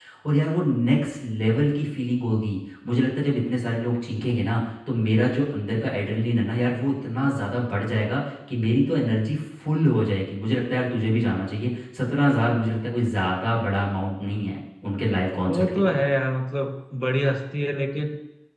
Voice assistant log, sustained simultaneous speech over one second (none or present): none